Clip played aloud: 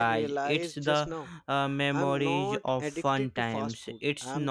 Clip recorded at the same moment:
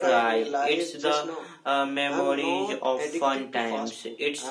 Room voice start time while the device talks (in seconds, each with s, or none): none